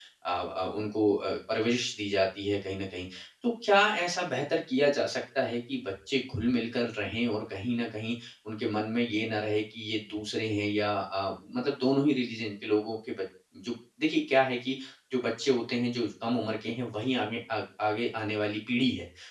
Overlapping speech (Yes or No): No